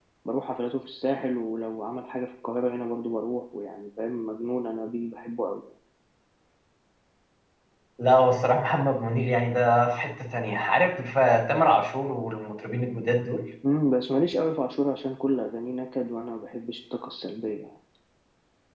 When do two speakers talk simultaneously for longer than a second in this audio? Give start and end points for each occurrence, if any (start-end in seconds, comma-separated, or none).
none